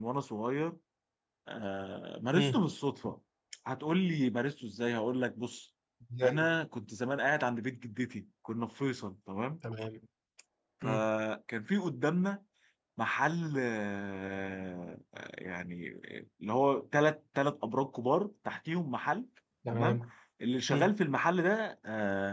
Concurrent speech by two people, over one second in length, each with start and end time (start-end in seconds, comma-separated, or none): none